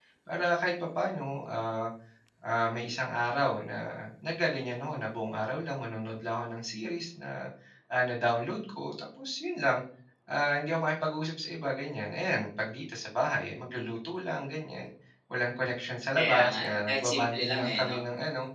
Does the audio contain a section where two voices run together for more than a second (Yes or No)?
Yes